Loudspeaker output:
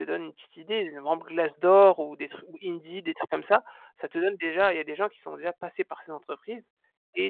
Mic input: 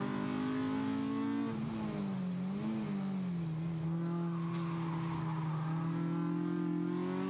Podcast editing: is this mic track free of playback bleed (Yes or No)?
Yes